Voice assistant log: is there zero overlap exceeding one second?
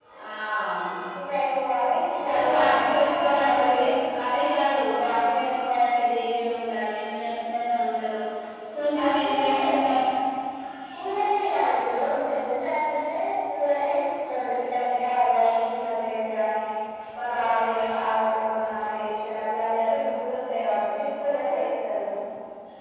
No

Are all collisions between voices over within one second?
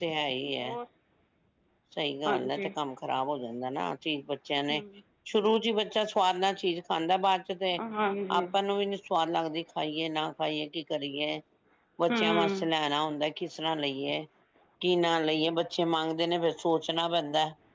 Yes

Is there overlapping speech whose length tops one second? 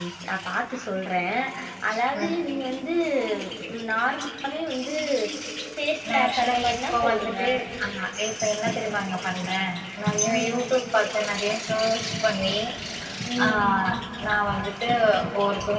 Yes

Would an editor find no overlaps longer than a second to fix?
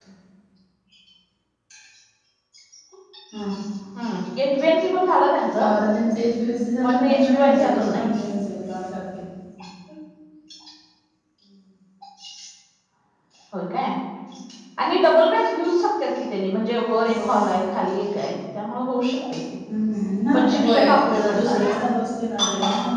No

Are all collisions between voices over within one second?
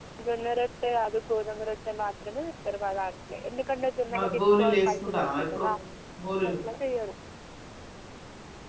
No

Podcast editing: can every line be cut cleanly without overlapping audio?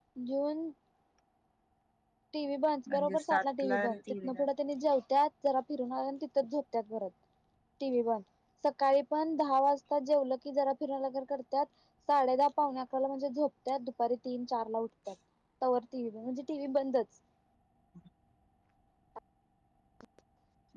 No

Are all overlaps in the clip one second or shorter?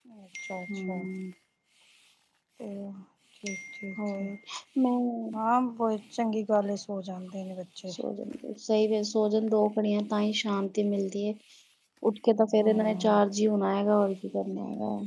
Yes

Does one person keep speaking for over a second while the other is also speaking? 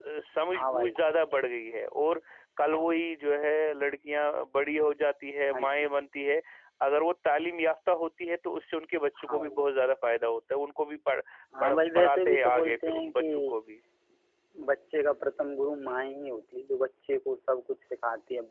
Yes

